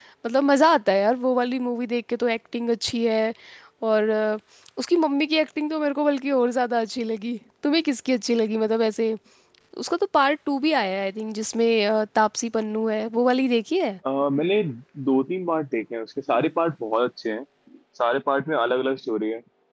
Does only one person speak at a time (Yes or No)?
Yes